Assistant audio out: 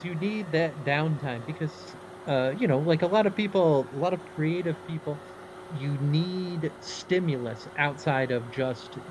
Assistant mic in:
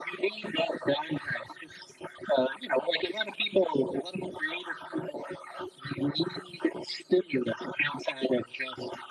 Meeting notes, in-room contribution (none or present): none